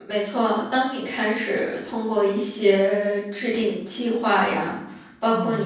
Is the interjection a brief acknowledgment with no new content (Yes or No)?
Yes